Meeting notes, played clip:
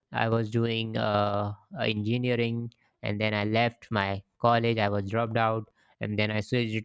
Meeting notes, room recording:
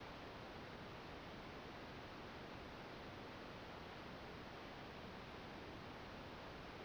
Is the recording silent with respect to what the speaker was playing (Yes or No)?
Yes